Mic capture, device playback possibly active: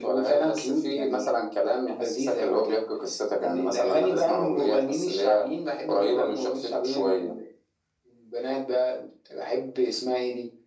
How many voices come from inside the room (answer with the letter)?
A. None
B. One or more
A